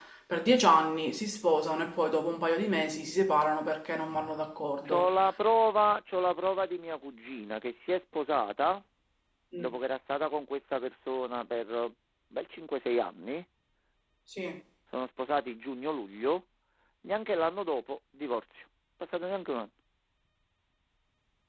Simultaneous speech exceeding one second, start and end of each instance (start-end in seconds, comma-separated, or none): none